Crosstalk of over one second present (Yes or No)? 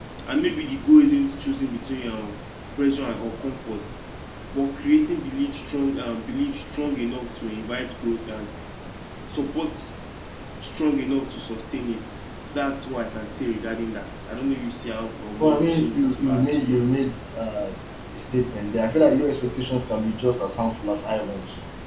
Yes